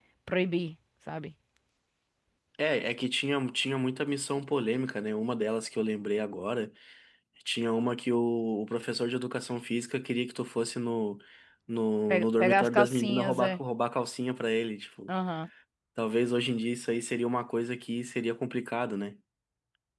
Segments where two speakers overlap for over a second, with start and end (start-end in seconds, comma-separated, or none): 12.1-13.6